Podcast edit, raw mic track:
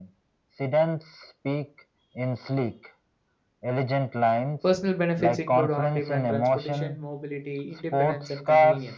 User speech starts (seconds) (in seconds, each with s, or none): 4.6 s